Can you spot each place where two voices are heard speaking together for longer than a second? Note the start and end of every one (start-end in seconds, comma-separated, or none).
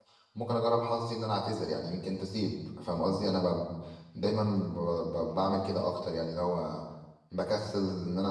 none